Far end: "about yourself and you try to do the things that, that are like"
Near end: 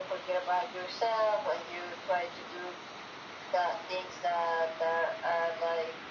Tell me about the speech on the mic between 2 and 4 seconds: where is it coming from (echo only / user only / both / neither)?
echo only